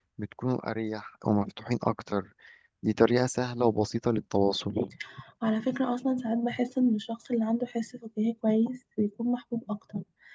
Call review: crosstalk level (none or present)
none